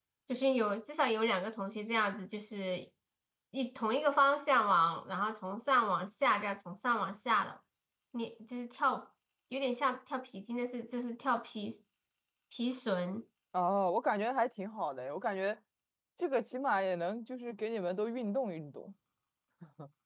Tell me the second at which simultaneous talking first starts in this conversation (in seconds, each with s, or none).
none